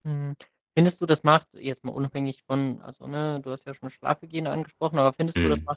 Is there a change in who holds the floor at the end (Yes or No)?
No